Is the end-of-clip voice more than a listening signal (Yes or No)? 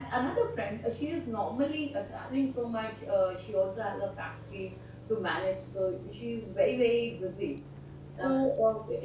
No